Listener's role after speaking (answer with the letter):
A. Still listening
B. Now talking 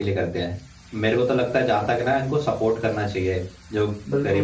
B